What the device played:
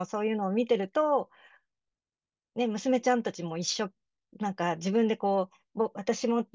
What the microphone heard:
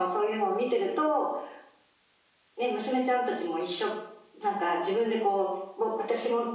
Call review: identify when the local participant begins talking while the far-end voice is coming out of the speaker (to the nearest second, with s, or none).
none